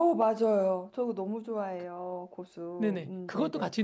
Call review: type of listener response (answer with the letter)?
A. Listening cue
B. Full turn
B